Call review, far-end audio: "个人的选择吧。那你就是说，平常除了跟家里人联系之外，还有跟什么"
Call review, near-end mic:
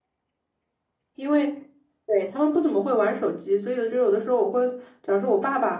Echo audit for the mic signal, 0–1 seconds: neither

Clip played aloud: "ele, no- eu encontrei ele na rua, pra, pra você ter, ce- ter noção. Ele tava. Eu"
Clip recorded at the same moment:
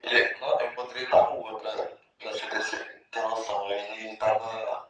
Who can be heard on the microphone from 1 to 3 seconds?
echo only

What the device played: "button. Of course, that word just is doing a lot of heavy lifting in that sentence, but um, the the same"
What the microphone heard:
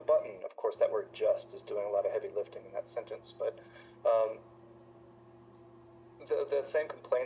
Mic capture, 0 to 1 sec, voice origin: echo only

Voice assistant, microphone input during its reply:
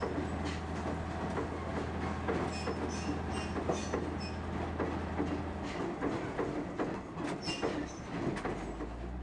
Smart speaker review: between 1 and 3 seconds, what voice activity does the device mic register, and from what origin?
neither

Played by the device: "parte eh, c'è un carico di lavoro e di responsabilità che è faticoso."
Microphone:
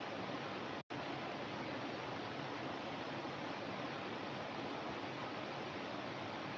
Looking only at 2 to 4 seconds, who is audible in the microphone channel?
neither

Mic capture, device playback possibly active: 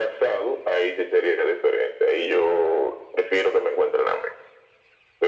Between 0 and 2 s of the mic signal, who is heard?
echo only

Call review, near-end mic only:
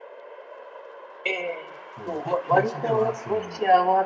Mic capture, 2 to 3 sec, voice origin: both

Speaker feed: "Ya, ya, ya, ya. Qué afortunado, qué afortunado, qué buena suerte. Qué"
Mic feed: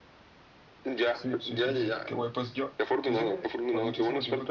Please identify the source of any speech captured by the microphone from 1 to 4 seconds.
both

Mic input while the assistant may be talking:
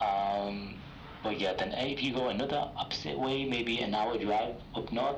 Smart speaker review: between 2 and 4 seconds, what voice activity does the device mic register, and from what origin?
echo only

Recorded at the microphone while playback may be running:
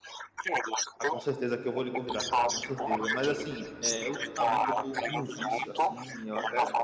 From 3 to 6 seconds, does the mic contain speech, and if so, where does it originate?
both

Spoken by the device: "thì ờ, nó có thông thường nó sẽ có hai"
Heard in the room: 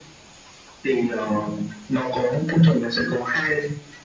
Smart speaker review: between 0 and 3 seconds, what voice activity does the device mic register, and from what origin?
echo only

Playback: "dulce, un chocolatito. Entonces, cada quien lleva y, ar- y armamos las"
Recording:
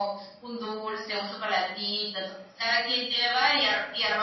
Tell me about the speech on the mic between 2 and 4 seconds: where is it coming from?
echo only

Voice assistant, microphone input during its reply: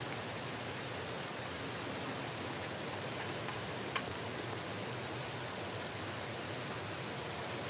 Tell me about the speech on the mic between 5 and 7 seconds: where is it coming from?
neither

